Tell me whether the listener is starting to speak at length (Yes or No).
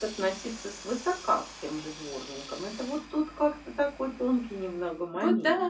Yes